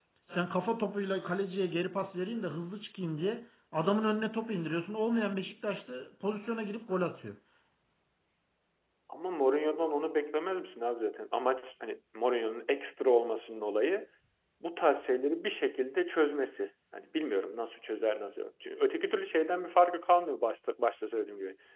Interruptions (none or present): none